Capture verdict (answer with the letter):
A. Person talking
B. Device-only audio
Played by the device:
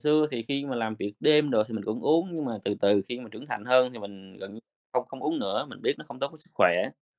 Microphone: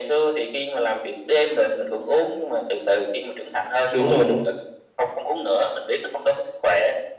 A